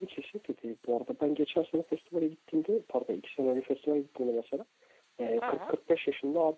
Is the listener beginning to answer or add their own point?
No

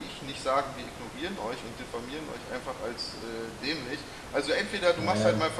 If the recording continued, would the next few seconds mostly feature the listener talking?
No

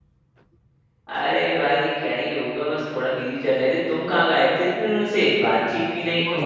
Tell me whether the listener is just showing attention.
No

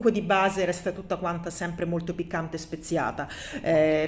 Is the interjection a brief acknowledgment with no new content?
Yes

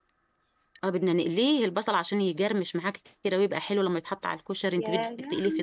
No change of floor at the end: No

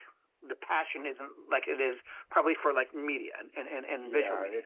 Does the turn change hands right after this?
Yes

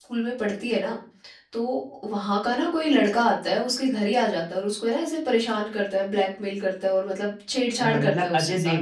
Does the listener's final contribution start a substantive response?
Yes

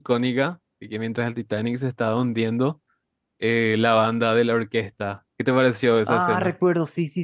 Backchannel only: No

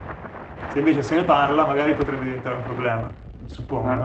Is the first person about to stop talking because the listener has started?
Yes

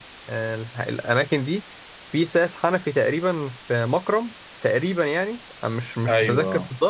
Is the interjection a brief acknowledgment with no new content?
Yes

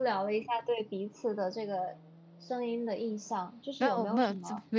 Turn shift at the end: Yes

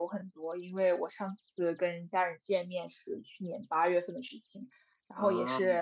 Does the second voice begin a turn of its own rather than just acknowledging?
No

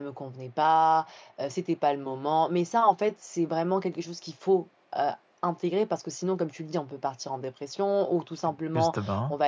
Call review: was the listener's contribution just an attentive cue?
Yes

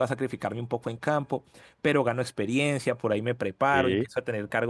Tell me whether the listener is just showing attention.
Yes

